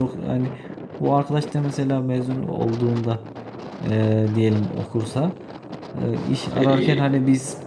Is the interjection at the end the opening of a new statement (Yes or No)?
No